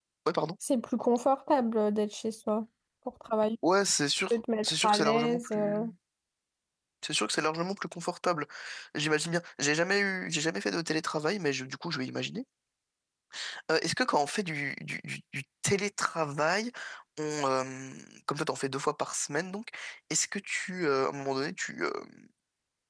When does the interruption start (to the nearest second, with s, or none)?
4 s